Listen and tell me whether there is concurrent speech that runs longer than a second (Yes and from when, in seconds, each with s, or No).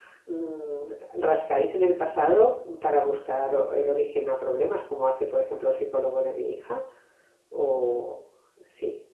No